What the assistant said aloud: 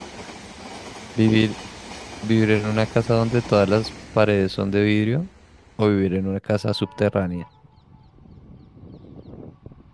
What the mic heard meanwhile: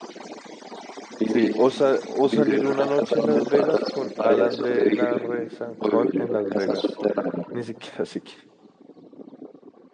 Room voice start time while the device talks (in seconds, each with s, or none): 1.2 s